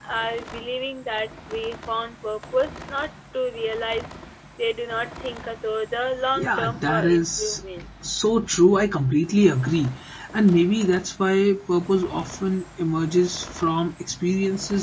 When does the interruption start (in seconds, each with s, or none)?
6.3 s